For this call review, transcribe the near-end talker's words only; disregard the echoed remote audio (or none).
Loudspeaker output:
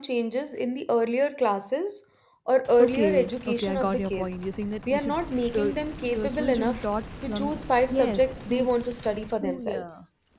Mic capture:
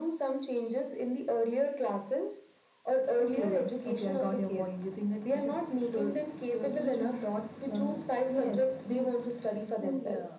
none